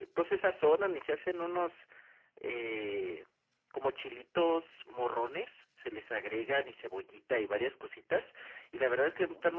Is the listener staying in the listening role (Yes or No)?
Yes